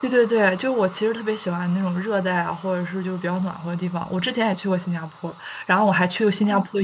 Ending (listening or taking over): listening